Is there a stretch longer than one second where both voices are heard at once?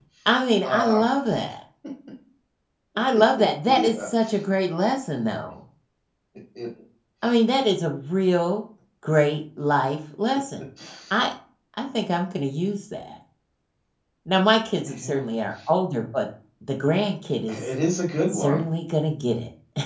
No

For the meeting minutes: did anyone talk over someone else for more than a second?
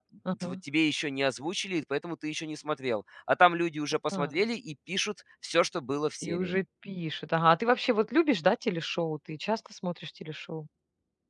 No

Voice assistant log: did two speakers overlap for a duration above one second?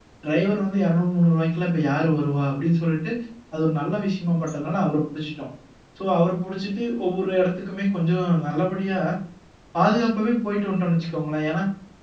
No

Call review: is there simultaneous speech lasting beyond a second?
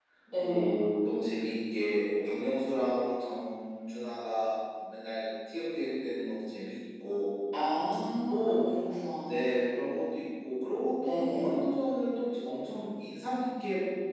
No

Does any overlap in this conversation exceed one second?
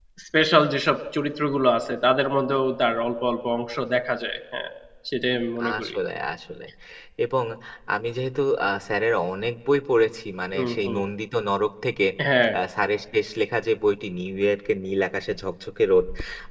No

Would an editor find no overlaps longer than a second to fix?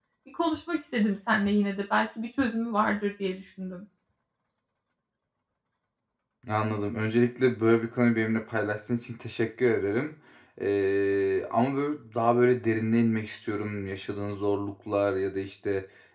Yes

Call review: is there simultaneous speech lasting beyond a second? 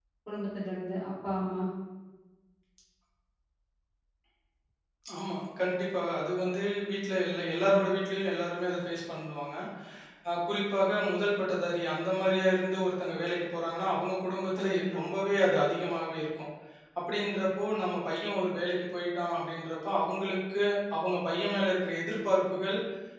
No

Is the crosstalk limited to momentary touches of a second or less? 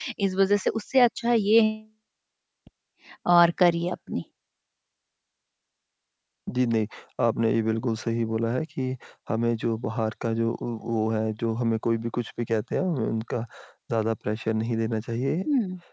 Yes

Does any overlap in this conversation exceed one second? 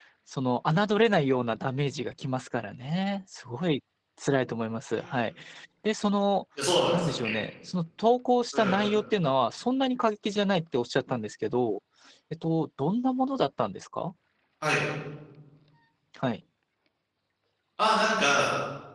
No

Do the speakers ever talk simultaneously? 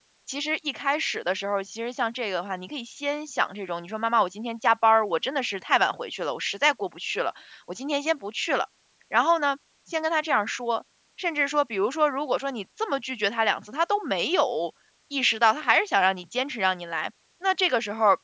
No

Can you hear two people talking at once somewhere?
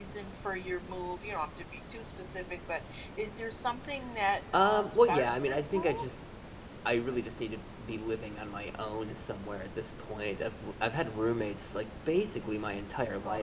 Yes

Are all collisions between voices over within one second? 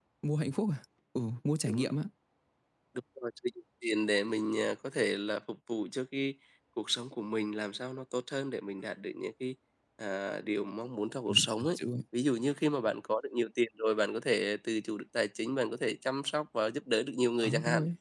Yes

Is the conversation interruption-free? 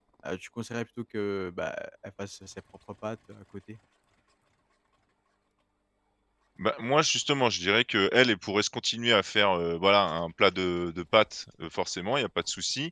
Yes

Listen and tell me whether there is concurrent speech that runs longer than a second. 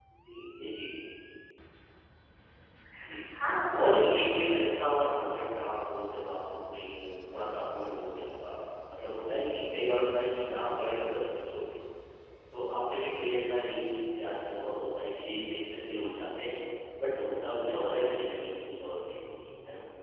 Yes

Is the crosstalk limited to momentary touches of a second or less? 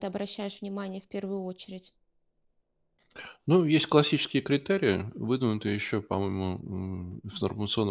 Yes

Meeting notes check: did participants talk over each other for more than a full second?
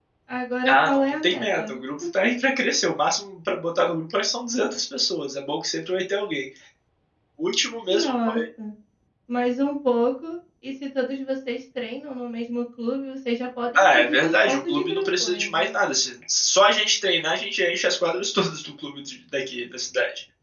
Yes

